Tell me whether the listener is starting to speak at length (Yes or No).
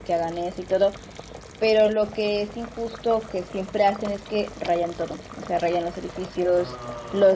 No